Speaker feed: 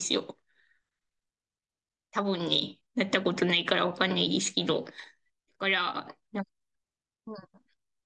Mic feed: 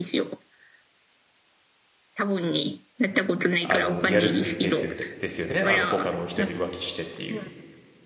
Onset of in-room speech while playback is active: 3.6 s

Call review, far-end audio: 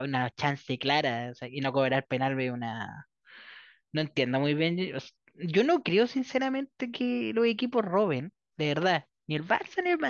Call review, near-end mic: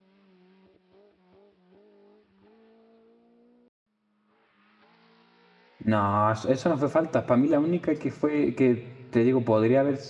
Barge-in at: 5.8 s

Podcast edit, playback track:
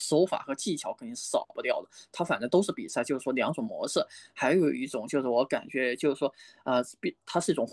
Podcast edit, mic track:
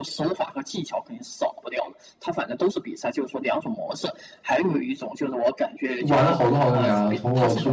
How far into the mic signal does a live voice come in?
6.1 s

